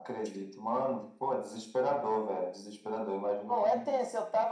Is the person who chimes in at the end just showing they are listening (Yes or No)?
No